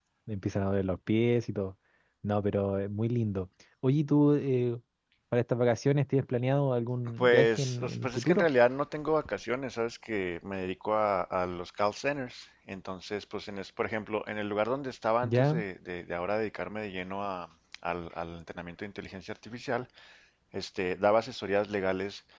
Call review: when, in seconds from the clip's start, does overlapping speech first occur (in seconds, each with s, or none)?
7.2 s